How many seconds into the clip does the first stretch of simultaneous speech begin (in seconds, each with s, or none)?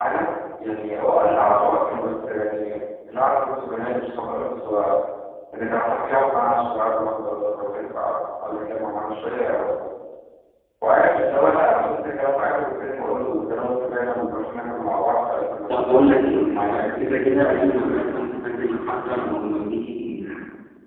15.7 s